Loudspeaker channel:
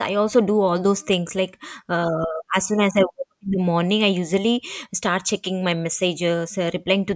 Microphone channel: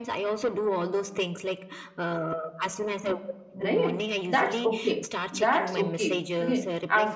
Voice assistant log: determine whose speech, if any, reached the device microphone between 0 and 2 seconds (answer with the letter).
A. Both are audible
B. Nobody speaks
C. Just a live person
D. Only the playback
D